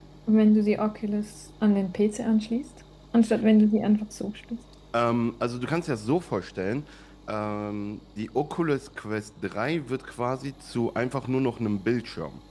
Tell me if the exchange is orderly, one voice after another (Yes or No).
Yes